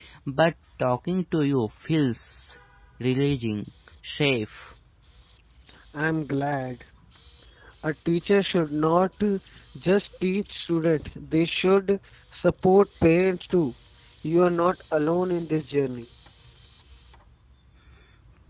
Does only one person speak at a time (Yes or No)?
Yes